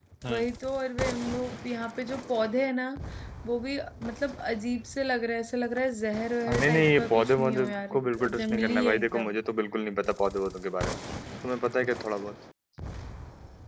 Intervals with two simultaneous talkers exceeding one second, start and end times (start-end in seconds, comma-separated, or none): 6.5-9.3